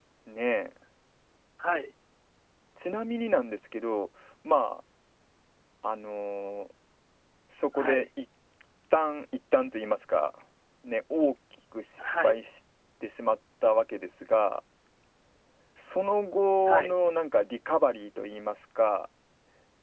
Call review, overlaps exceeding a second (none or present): none